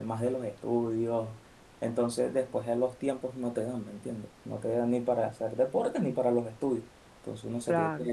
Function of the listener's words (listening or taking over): listening